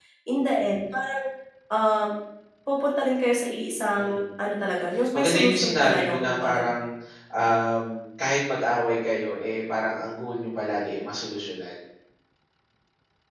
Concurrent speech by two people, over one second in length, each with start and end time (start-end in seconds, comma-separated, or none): 5.1-6.6